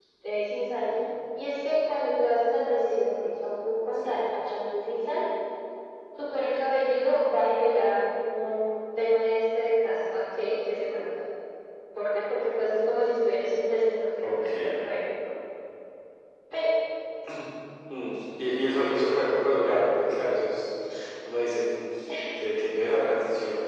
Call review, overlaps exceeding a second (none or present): none